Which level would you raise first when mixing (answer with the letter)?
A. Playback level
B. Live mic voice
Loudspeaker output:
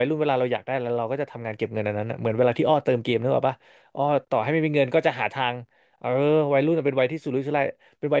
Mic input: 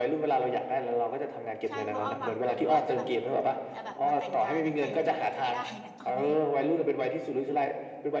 B